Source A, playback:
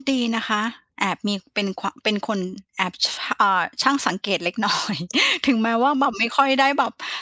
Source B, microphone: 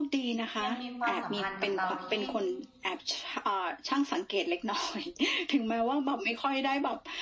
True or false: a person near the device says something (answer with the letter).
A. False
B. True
B